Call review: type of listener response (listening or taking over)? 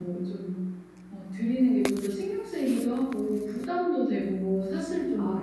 taking over